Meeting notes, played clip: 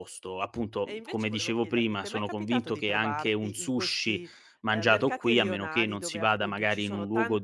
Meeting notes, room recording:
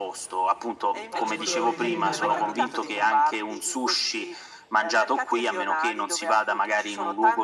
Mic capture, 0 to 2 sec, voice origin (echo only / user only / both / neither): both